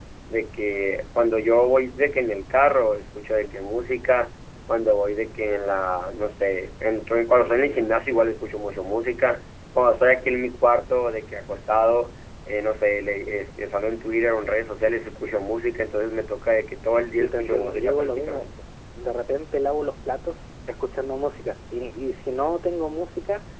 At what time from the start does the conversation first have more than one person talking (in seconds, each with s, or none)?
17.2 s